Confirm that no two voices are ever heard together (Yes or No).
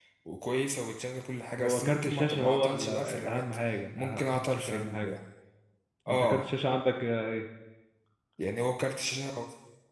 No